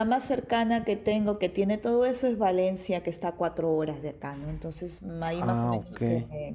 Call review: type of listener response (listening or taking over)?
listening